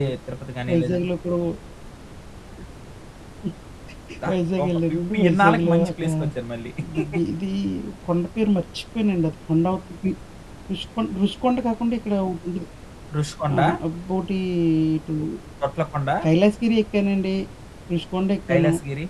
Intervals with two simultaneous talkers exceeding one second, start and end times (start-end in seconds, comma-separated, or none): 4.3-6.1